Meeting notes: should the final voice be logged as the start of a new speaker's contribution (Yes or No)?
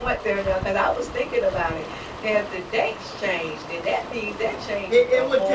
Yes